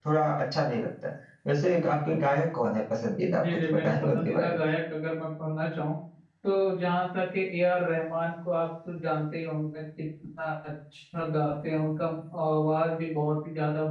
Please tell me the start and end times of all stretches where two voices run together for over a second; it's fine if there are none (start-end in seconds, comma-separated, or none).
3.2-4.6